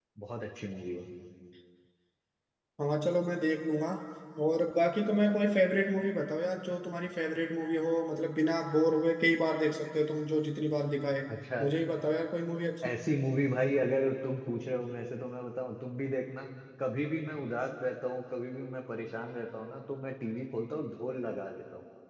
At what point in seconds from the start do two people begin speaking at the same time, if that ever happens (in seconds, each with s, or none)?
none